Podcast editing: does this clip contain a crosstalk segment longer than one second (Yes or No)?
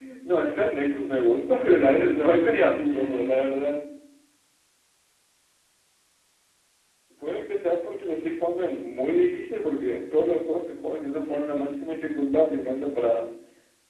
Yes